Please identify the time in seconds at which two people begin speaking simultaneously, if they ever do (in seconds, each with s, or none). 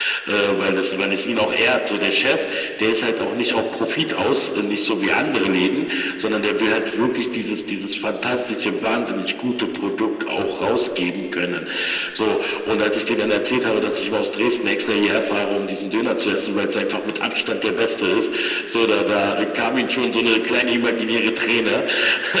none